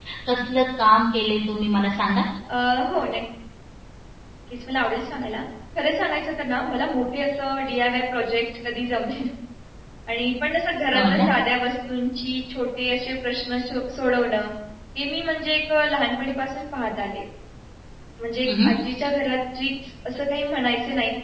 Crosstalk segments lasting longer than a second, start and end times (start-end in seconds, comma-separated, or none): none